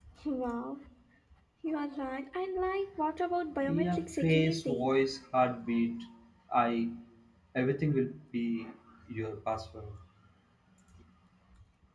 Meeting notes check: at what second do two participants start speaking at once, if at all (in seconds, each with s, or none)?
3.6 s